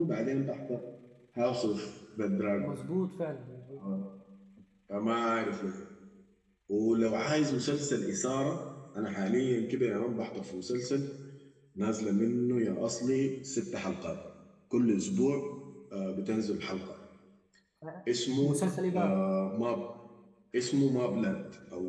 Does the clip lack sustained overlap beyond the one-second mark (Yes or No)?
Yes